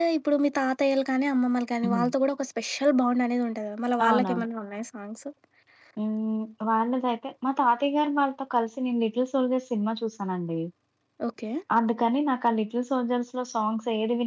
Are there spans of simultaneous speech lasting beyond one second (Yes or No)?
No